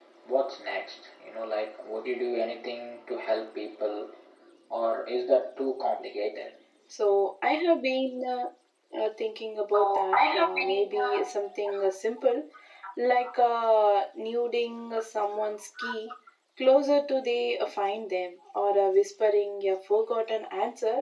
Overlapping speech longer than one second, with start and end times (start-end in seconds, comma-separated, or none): 9.7-11.1